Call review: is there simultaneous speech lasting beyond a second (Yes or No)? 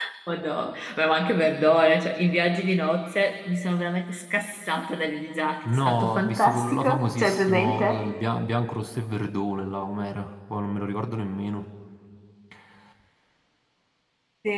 Yes